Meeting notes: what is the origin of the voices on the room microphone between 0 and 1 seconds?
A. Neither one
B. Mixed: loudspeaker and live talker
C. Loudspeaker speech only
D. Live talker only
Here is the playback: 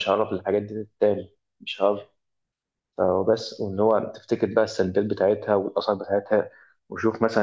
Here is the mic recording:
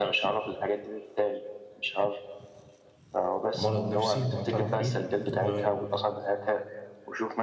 C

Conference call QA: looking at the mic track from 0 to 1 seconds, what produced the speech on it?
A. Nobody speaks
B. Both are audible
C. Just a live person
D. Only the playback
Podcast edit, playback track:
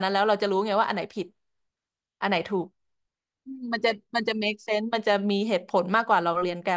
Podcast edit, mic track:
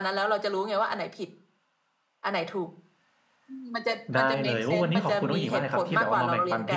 D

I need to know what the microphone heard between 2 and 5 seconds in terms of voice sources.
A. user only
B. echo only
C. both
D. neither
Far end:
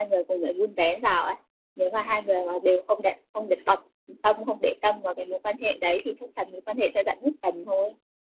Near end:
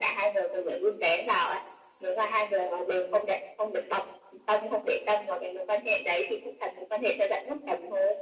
B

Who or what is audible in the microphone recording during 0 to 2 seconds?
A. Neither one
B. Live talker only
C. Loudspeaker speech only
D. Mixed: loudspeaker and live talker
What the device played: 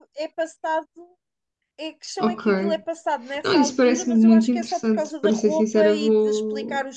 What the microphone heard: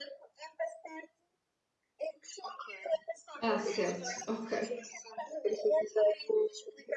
C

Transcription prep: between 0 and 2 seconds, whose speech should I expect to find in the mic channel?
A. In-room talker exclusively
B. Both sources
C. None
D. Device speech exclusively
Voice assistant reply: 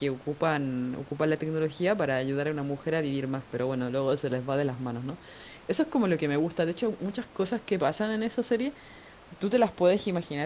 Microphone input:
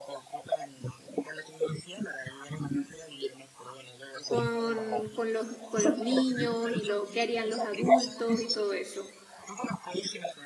D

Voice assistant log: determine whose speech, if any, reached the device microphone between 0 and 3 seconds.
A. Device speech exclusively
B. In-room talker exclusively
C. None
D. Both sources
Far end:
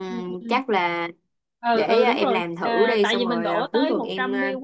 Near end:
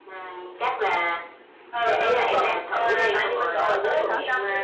A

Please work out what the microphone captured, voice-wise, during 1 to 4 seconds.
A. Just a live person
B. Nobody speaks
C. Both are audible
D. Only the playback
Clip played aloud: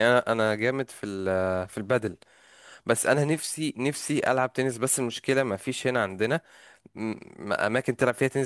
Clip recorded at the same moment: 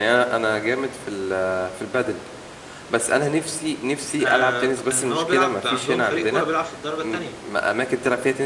D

